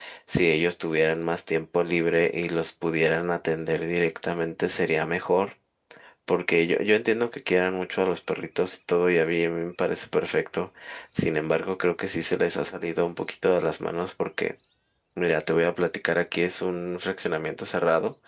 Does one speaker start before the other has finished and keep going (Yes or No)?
No